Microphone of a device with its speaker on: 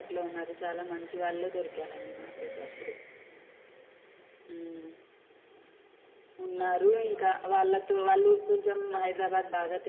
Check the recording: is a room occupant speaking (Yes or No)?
Yes